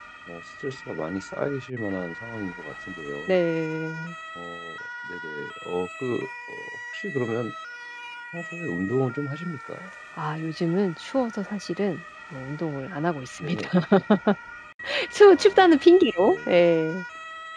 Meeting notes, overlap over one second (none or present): none